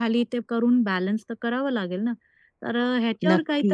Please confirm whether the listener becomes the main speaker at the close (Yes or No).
No